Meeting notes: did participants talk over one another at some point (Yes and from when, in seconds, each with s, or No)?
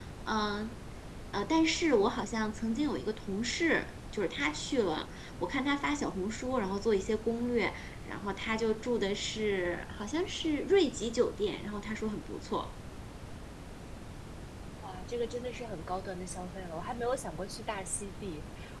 No